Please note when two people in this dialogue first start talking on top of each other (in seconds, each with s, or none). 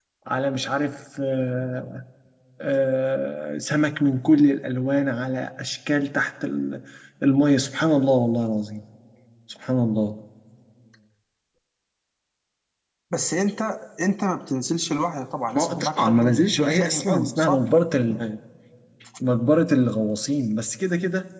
15.5 s